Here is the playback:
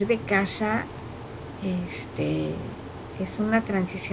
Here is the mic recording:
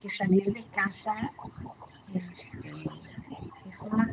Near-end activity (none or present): none